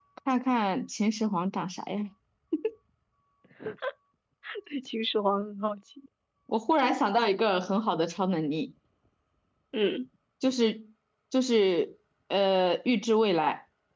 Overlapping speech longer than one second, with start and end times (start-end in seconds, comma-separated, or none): none